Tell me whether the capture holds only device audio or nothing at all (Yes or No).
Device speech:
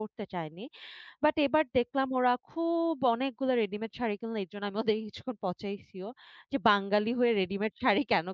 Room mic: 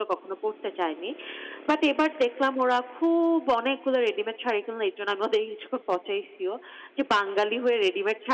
Yes